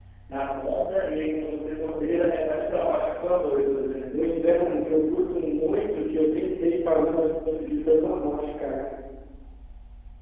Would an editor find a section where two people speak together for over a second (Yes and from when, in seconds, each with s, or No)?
No